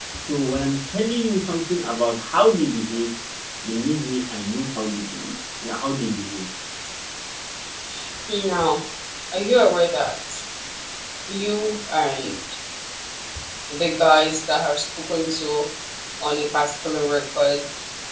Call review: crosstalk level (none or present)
none